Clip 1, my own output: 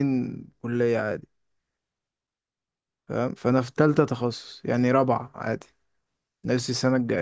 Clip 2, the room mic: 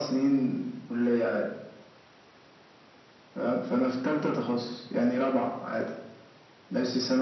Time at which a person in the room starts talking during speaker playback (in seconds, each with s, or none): none